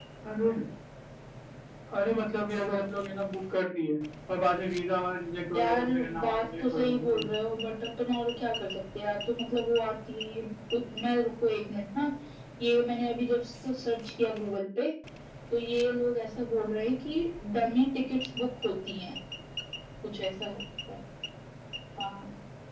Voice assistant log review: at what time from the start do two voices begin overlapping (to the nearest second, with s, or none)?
6 s